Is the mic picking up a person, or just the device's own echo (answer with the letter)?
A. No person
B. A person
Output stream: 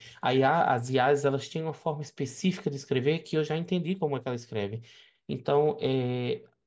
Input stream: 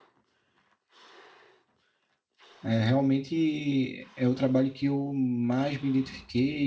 B